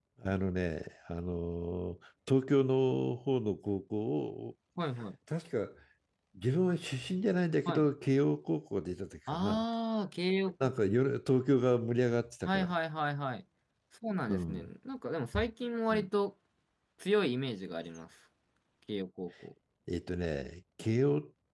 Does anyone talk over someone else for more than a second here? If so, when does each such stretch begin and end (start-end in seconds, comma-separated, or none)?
none